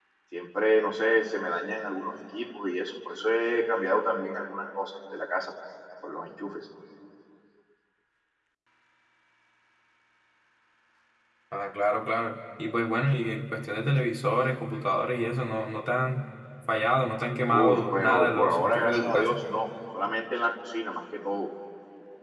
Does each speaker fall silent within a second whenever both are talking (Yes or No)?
No